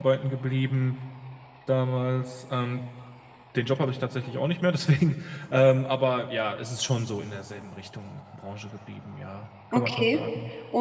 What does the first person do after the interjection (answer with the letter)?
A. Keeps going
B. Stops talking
B